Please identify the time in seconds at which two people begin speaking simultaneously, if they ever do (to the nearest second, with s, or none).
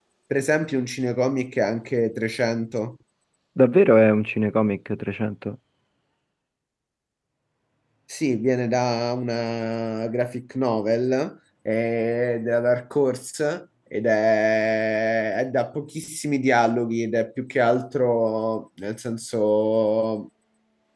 none